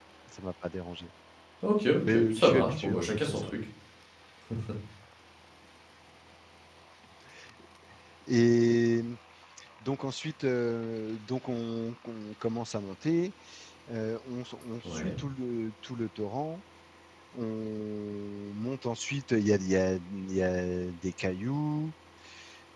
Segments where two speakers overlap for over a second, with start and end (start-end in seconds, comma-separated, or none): 2.0-3.4